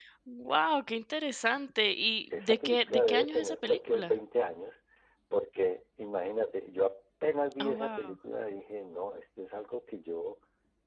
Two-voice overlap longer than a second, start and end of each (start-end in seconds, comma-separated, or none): 2.4-4.1